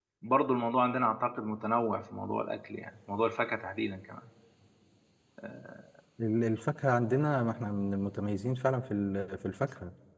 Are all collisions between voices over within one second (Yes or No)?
Yes